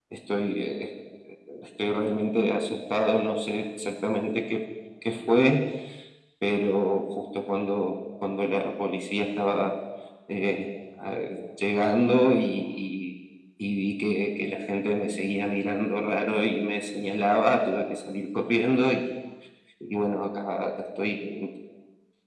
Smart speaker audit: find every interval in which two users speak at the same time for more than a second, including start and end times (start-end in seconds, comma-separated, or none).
none